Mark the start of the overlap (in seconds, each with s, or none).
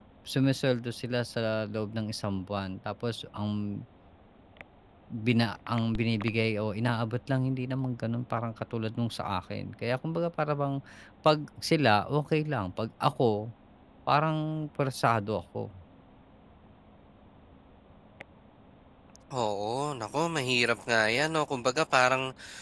none